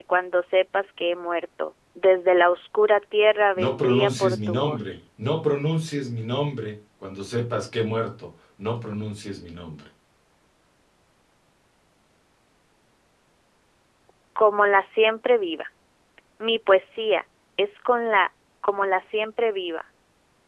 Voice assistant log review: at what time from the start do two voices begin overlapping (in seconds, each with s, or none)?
3.6 s